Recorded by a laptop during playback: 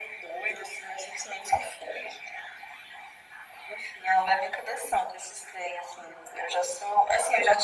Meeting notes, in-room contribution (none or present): none